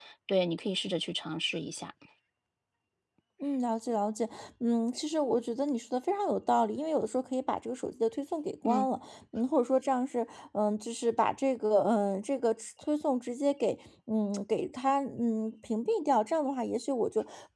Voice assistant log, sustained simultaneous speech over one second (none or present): none